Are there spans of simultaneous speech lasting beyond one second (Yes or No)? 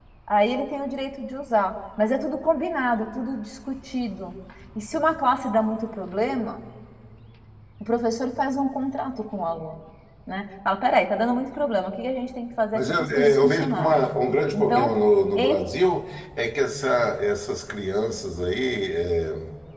Yes